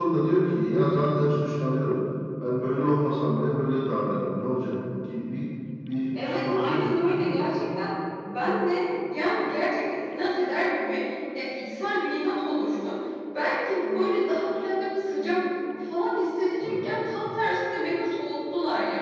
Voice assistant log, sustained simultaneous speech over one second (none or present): present